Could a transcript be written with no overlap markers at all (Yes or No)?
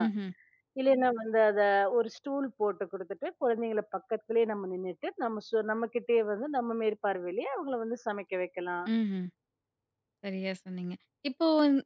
Yes